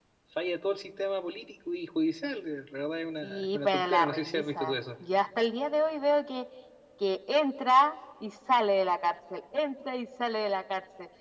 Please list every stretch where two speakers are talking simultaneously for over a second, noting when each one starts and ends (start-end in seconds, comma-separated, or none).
3.2-4.7